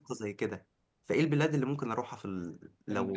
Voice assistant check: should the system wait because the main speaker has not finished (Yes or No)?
No